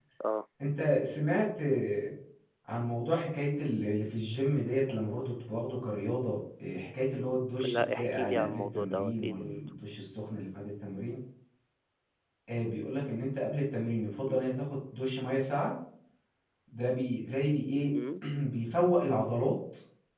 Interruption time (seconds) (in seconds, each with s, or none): 7.6 s